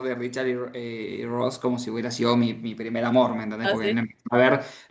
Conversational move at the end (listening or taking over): listening